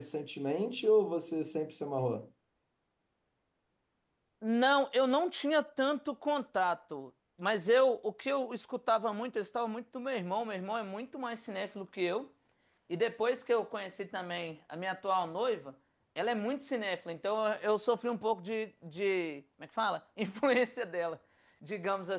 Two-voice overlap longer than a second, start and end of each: none

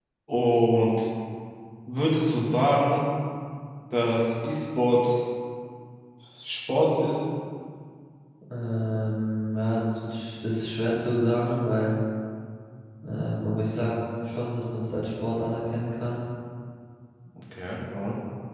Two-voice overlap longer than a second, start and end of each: none

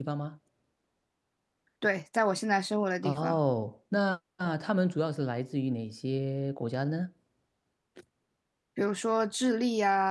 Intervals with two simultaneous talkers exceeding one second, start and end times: none

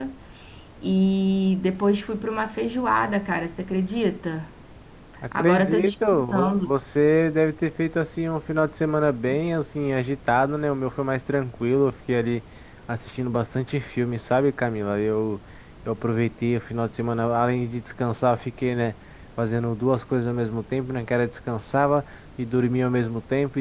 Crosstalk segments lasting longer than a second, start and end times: 5.3-6.7

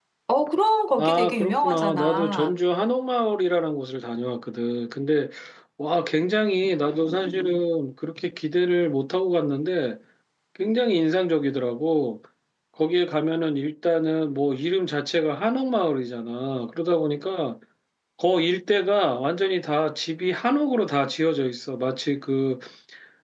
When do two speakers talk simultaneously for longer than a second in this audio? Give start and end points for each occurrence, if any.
1.0-2.5

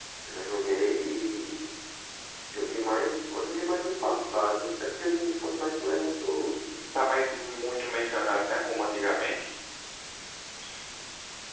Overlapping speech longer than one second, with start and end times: none

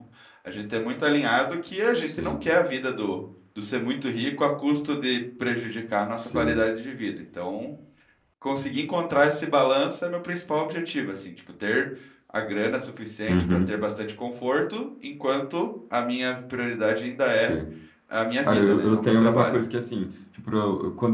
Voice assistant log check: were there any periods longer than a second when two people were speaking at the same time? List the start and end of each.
18.4-19.6

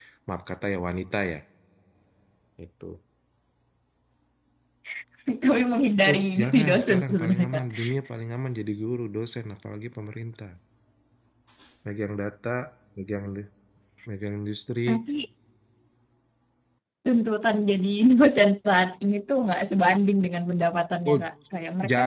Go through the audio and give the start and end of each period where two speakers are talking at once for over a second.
6.1-7.6

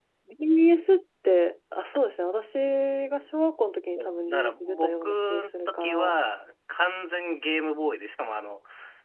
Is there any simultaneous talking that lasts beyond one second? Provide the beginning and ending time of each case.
4.0-6.2

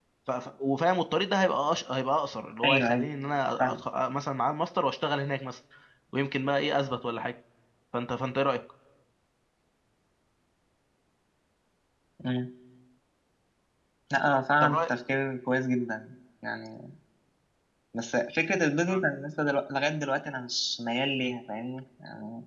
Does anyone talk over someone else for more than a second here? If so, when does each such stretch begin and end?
none

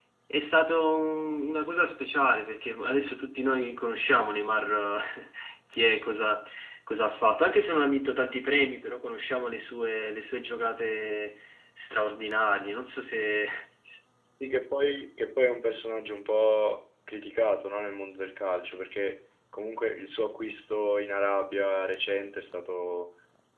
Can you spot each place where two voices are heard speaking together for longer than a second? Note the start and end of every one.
none

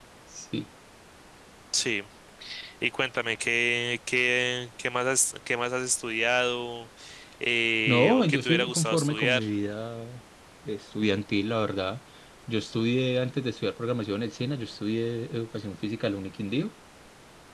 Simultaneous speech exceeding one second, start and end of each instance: 7.9-9.4

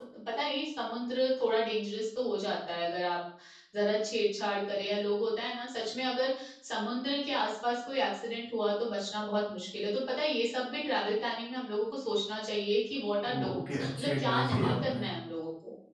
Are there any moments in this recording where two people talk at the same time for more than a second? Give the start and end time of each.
13.3-15.0

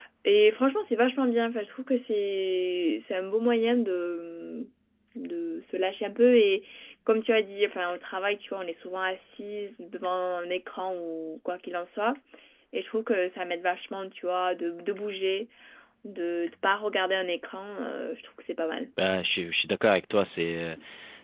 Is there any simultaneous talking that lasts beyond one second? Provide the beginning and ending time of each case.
none

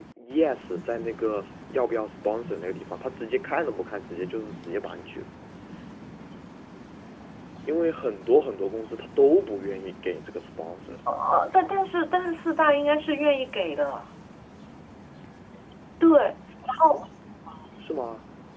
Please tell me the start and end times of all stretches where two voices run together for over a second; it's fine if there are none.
none

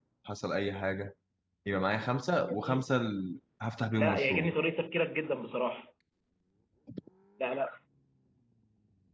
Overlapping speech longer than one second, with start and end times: none

